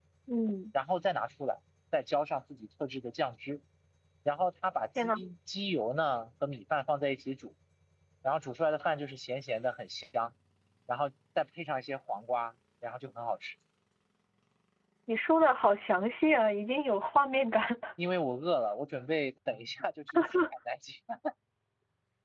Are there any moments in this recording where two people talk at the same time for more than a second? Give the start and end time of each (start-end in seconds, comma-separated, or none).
none